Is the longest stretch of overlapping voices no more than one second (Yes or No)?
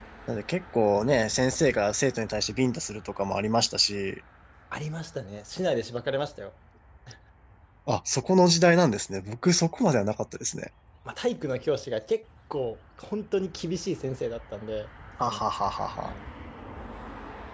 Yes